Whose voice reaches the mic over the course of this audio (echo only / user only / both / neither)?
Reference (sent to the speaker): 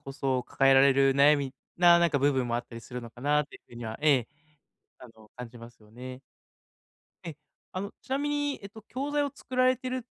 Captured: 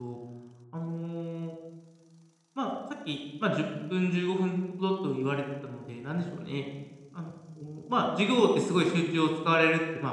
user only